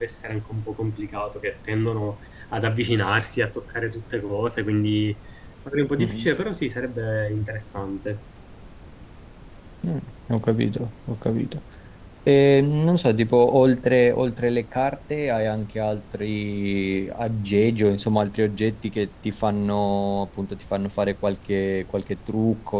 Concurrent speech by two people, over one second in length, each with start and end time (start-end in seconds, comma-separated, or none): none